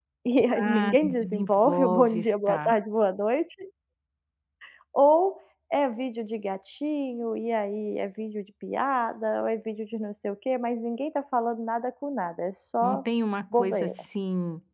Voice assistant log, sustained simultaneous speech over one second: present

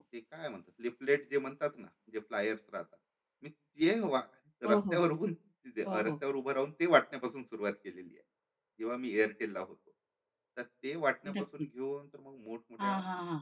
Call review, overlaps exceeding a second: none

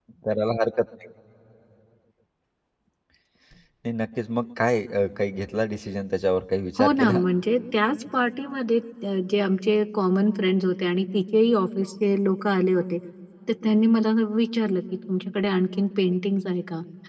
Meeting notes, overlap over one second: none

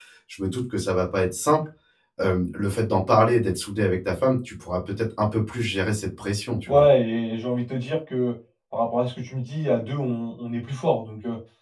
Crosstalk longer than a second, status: none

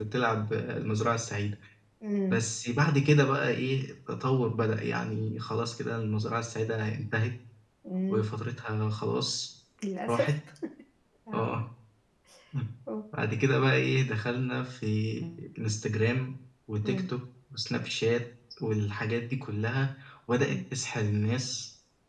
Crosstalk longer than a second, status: none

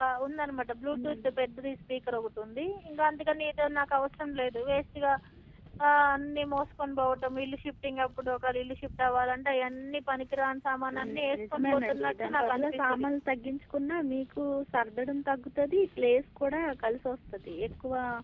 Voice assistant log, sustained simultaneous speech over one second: present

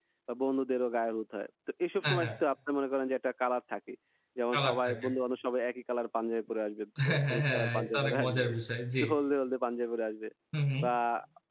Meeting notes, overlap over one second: present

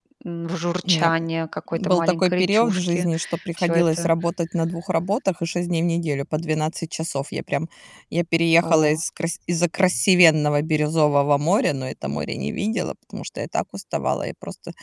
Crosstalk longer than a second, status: present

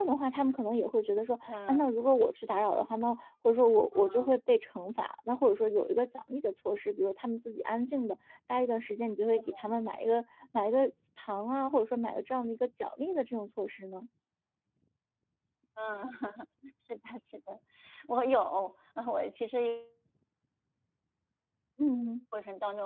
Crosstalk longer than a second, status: none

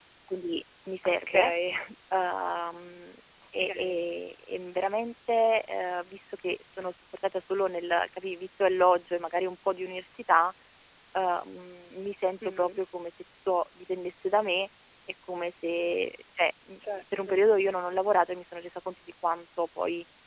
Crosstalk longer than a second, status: none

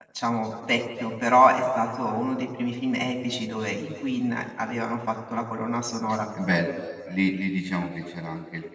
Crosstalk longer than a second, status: none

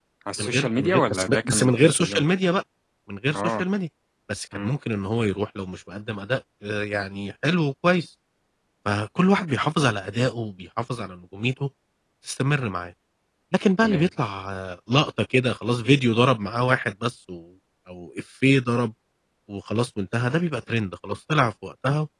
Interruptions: present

